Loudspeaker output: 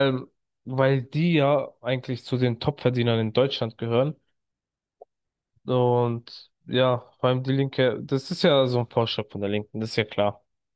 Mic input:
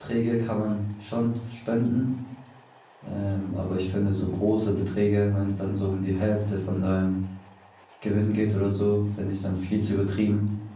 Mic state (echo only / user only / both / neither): user only